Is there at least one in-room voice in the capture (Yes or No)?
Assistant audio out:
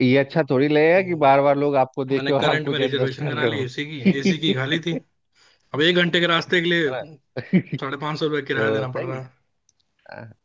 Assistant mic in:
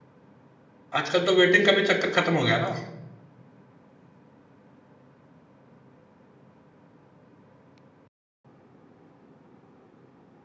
Yes